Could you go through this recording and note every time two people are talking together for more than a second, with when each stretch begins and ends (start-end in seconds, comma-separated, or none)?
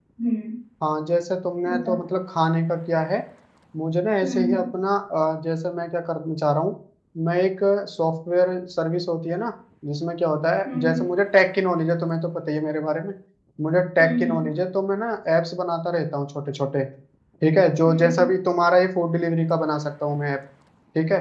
none